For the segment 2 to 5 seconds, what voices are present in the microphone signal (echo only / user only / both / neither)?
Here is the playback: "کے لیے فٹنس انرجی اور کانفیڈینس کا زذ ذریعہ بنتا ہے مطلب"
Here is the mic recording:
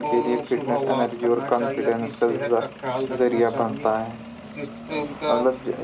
both